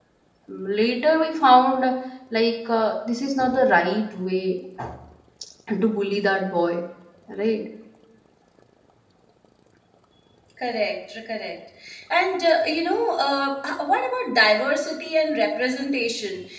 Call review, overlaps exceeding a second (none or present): none